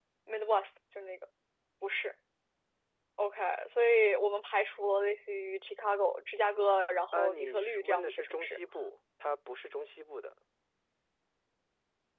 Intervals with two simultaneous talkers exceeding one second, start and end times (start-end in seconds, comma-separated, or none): 7.1-8.6